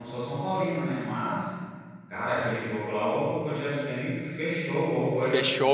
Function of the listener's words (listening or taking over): taking over